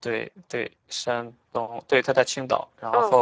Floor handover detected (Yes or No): No